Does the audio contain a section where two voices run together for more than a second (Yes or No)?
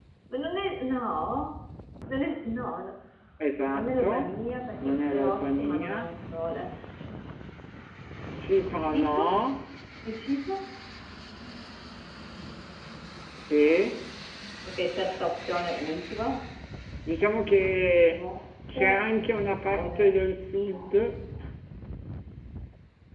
Yes